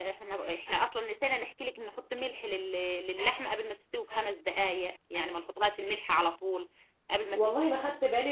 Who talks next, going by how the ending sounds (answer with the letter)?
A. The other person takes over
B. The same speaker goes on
A